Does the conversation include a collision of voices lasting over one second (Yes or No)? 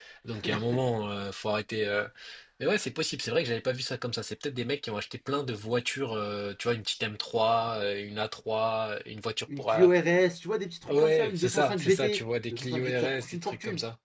Yes